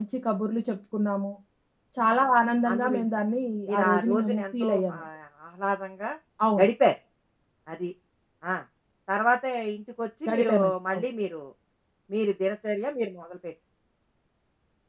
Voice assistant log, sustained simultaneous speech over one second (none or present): present